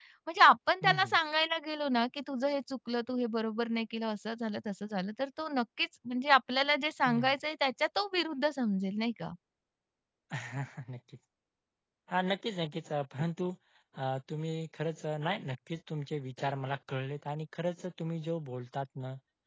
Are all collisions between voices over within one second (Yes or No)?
Yes